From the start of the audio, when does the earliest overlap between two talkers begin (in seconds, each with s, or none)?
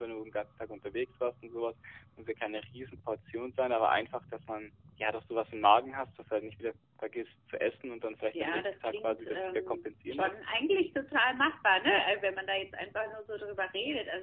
8.3 s